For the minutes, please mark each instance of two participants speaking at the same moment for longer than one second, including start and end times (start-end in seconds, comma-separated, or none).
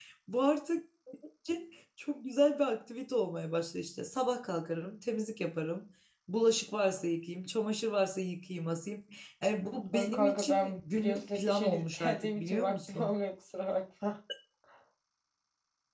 9.9-13.1